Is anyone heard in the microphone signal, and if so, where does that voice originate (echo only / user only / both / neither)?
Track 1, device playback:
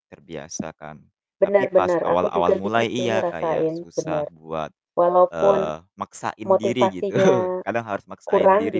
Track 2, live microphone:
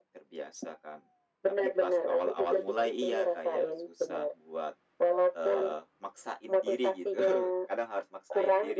echo only